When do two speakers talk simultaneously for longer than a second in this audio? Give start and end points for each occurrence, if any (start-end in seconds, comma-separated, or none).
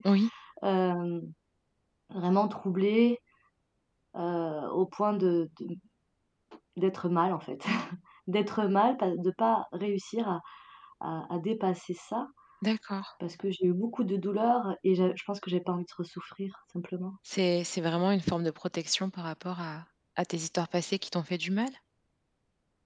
none